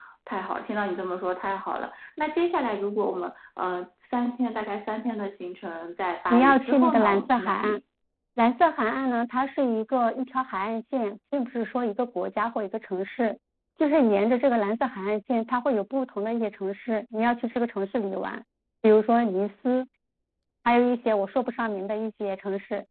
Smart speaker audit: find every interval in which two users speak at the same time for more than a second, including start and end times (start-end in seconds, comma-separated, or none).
6.3-7.8